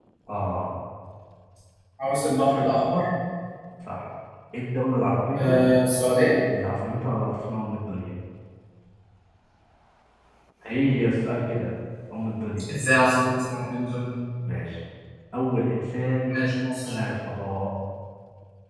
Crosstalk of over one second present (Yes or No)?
No